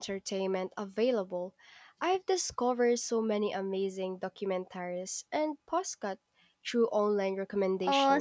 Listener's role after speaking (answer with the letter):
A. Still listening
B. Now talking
B